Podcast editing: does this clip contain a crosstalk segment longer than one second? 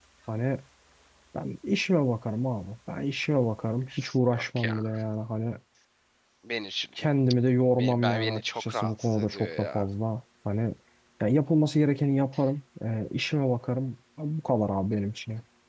Yes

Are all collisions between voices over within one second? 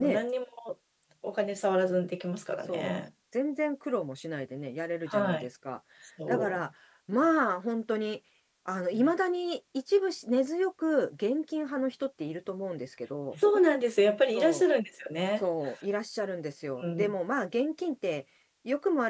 Yes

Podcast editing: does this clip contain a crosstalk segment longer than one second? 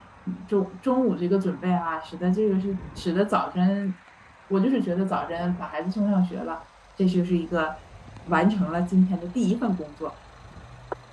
No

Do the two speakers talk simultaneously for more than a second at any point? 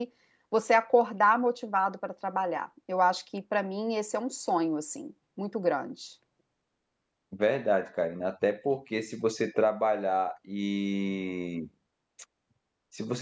No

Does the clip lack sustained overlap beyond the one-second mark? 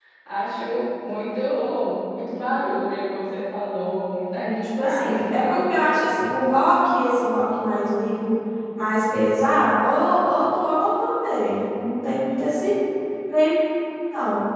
No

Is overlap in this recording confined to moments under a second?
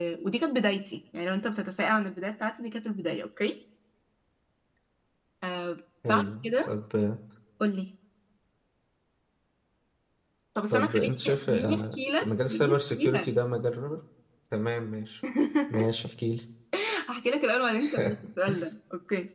No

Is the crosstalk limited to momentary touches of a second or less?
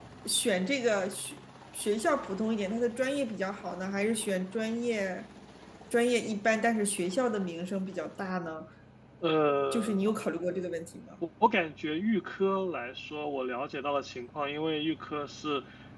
Yes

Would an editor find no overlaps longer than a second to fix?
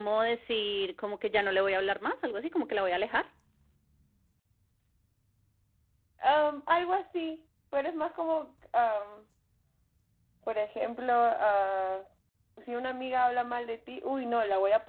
Yes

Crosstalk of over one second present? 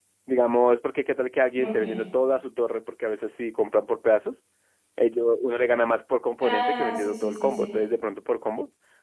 Yes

